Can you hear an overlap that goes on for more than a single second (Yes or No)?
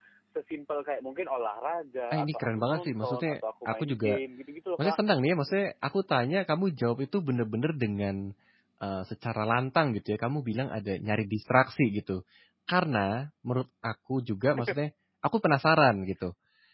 Yes